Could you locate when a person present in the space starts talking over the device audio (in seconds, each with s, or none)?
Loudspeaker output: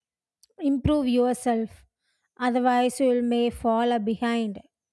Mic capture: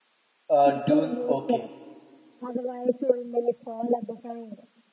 0.5 s